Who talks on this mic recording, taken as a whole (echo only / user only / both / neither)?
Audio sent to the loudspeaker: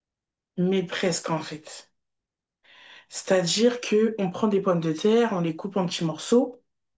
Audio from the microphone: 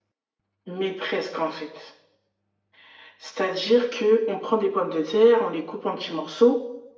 echo only